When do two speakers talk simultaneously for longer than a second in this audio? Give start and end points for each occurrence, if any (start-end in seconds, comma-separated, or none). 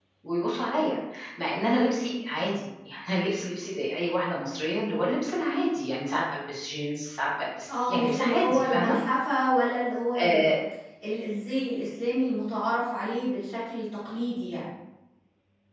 7.7-9.0